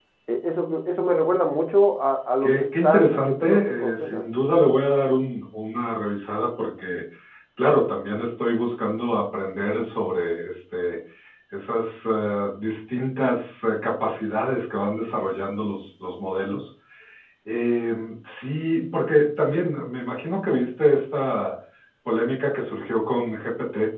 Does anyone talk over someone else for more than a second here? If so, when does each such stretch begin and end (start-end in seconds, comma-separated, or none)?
2.4-4.3